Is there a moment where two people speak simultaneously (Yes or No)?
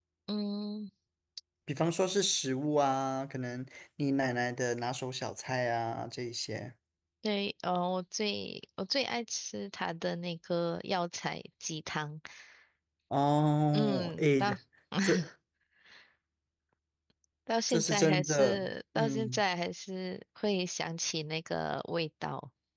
Yes